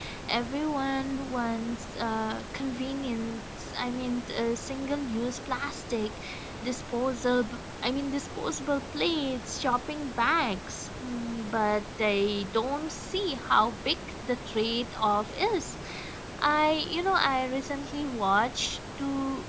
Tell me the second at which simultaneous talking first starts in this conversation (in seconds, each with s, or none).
none